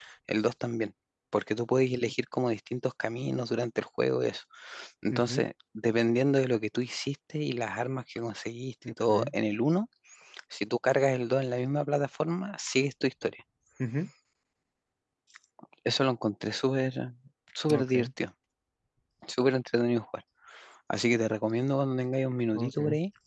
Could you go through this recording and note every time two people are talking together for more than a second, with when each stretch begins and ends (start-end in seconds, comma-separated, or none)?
none